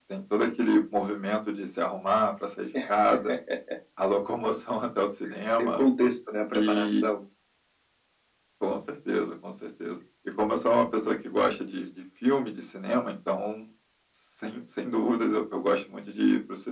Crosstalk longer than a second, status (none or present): none